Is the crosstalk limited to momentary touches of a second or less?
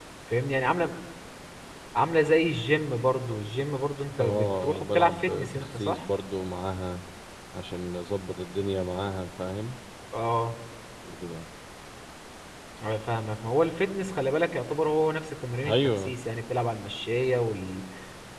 No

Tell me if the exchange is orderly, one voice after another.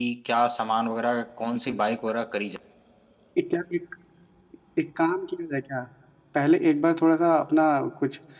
Yes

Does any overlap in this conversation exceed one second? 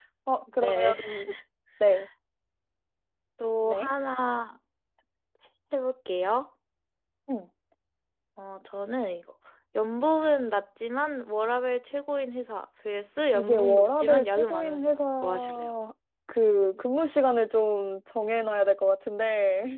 Yes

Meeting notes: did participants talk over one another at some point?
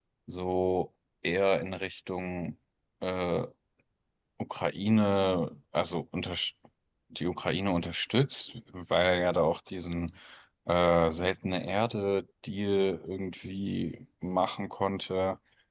No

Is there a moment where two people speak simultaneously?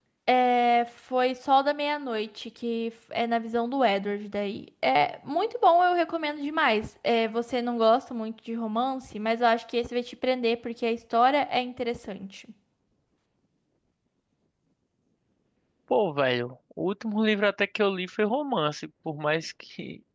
No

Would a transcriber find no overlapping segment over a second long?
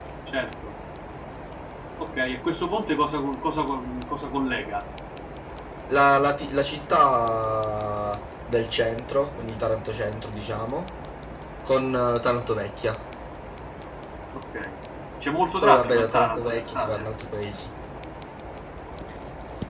No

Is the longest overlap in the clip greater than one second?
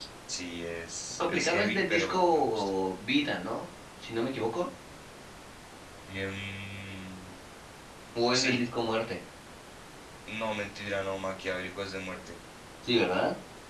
Yes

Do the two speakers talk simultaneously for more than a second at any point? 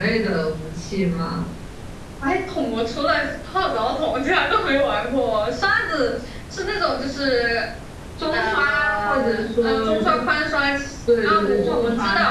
Yes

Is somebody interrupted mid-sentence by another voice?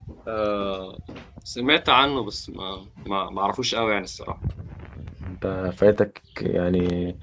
No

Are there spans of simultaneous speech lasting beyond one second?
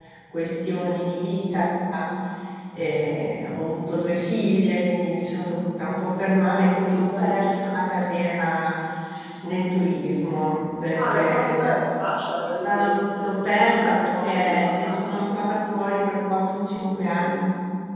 Yes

